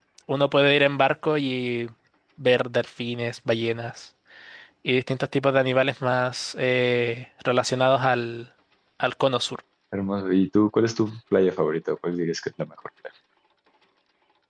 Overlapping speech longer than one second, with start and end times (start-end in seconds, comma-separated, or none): none